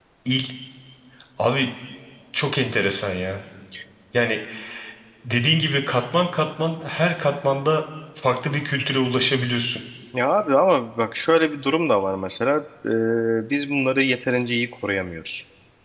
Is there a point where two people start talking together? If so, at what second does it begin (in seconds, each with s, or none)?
none